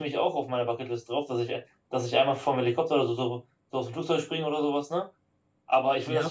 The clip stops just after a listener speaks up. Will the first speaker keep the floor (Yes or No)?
No